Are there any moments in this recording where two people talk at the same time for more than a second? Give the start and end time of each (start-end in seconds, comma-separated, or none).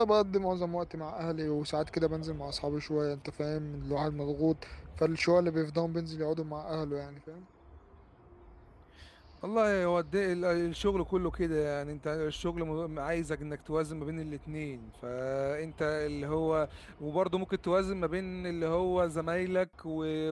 none